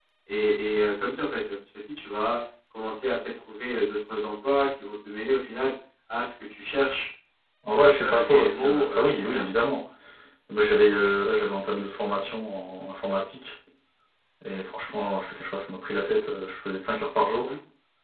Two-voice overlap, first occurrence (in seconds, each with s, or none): 8.0 s